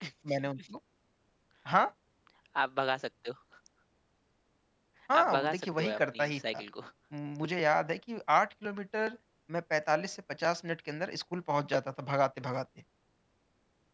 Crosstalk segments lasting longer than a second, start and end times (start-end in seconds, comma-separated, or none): 5.2-6.6